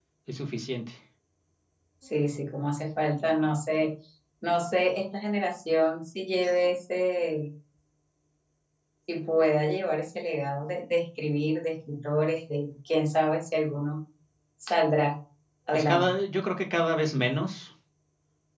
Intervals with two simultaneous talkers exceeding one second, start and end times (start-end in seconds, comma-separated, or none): none